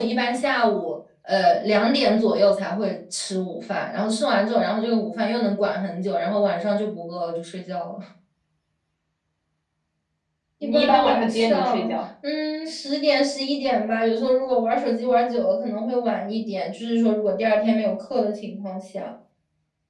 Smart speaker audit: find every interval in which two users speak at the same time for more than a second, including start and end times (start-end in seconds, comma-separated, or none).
10.6-12.0